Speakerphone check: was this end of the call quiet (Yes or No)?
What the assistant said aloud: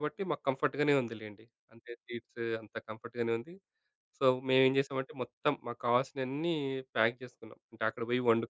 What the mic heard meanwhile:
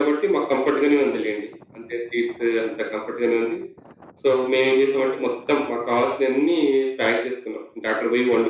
Yes